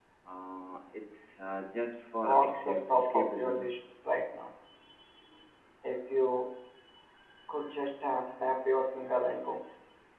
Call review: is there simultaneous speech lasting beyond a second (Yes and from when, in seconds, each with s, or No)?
Yes, from 2.2 s